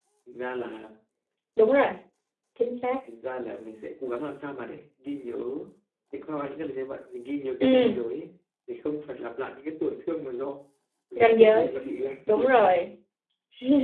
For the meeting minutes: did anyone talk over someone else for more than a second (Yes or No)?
No